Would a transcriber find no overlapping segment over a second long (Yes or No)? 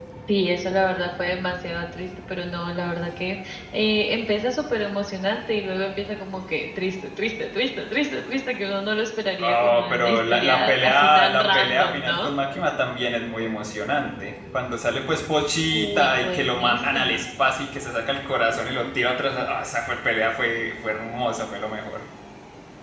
No